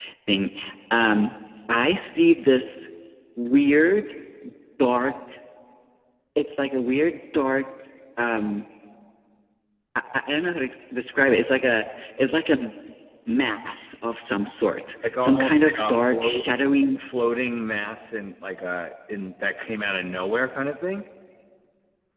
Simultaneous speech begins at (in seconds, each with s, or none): 15.0 s